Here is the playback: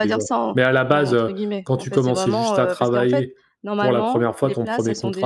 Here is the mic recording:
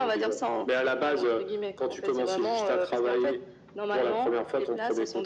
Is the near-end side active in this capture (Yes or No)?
No